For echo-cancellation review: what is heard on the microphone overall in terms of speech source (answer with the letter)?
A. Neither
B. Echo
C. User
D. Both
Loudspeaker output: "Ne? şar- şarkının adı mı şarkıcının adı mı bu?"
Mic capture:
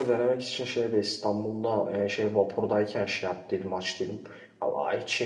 C